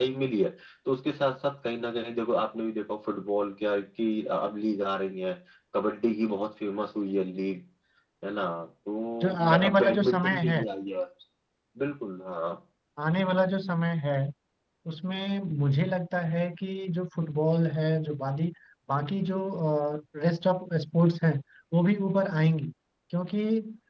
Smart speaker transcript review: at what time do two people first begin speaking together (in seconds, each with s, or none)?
9.2 s